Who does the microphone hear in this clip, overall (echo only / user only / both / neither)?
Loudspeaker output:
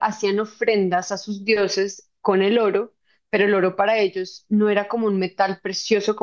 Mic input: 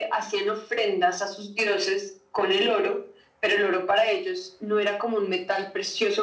echo only